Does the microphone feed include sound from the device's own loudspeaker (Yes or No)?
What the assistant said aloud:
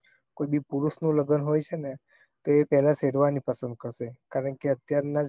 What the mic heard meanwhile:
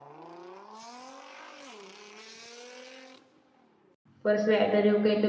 No